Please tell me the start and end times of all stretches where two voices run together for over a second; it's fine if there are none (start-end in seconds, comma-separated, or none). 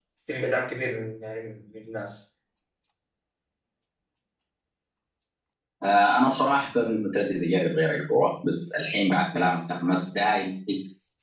none